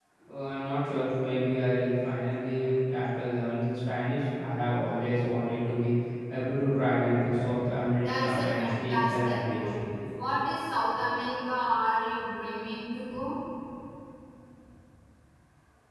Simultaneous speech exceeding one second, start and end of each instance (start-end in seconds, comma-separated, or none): 8.0-9.6